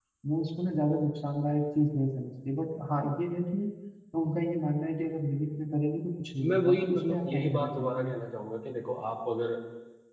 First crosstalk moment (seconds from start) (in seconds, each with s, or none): 6.4 s